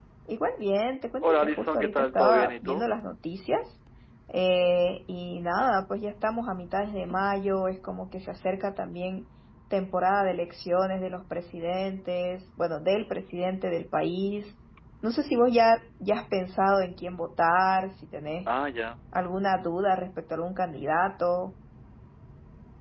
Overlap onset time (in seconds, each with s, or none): 1.2 s